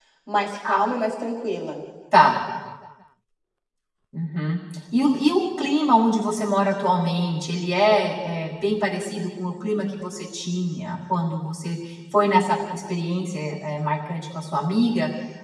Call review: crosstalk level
none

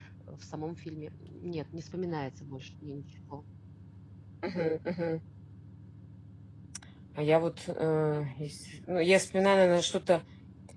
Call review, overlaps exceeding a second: none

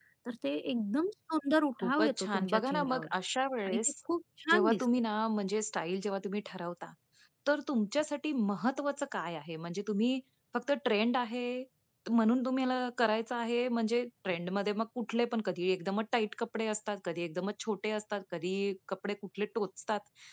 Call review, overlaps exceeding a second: present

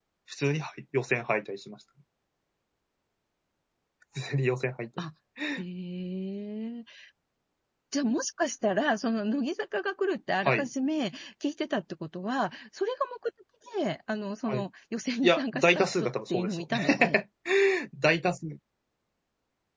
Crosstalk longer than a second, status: present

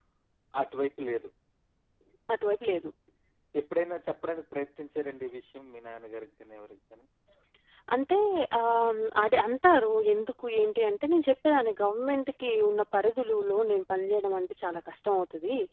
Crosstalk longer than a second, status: none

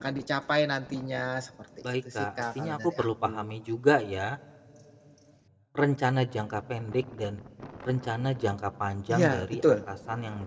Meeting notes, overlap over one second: present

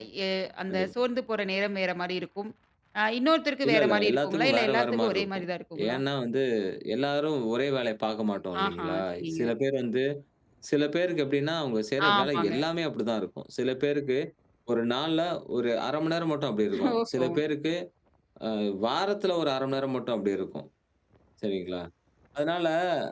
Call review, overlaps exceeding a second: present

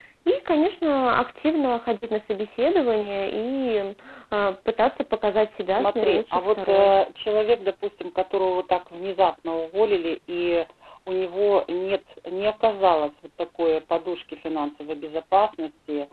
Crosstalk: present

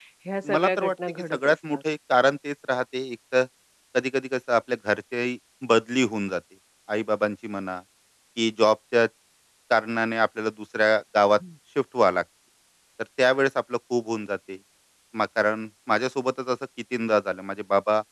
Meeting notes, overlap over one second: present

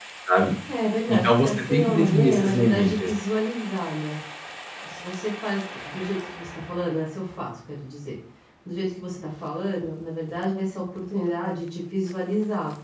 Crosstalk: present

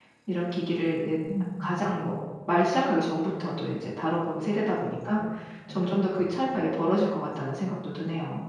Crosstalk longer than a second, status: none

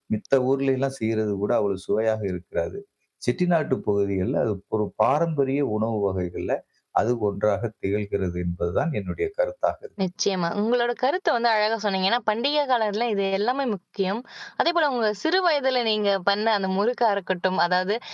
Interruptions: none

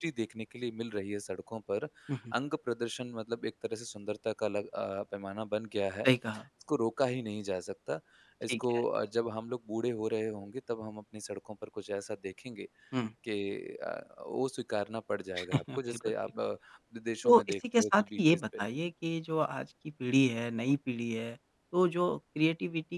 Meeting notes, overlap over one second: present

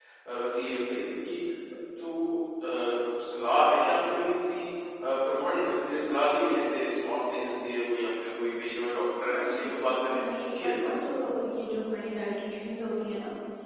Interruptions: present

